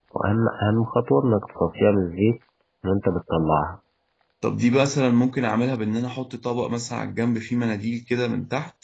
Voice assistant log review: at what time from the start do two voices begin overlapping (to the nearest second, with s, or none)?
none